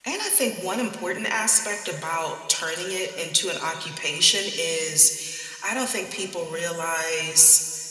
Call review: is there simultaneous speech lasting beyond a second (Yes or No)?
No